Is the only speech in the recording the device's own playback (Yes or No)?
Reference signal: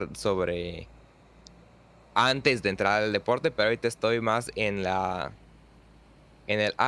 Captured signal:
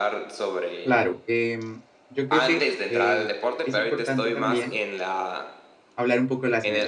No